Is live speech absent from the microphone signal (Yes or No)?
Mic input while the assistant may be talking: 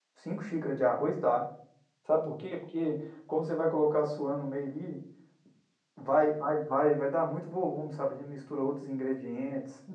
No